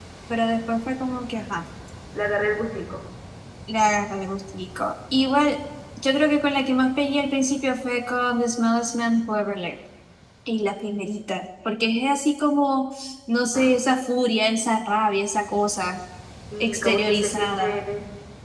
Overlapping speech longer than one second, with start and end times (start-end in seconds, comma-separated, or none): 16.6-17.8